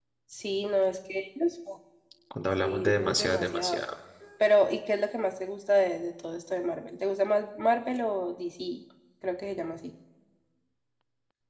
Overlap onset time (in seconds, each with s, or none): 2.6 s